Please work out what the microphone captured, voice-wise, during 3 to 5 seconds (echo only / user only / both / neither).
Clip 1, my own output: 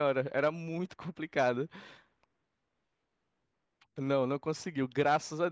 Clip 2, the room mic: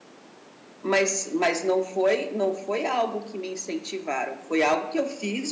user only